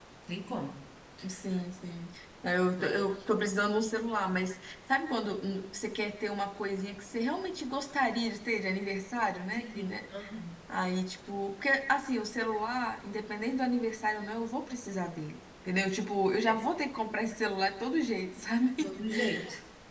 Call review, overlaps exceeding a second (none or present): none